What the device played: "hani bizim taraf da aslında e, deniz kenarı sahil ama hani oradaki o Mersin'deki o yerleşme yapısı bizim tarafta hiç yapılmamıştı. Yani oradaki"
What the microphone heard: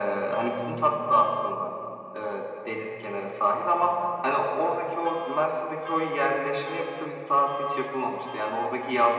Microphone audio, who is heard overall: echo only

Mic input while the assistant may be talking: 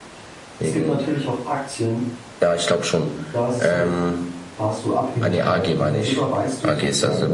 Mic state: both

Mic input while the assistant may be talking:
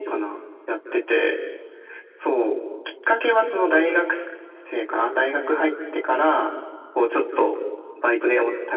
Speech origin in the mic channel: echo only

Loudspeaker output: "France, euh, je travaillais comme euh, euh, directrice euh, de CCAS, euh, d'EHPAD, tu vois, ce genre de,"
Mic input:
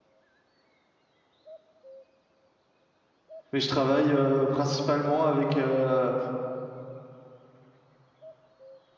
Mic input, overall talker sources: user only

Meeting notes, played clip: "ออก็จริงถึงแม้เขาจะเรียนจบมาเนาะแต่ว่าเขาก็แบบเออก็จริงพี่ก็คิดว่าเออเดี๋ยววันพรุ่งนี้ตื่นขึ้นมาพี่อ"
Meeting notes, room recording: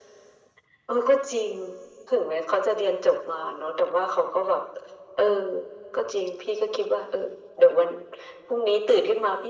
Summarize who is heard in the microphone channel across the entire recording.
echo only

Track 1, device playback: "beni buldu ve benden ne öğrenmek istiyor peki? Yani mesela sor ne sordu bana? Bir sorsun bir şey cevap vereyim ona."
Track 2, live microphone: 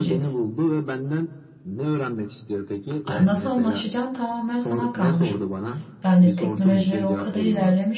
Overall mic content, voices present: both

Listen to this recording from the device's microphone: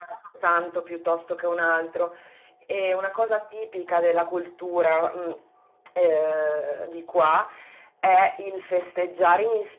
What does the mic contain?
echo only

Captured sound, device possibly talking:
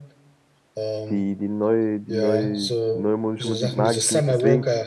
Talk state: both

